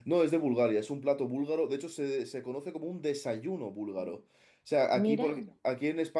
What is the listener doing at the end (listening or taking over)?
listening